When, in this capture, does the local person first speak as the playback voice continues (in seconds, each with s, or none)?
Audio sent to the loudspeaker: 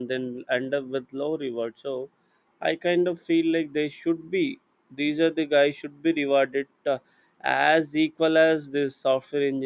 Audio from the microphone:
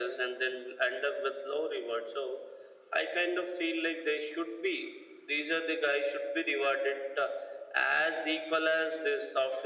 none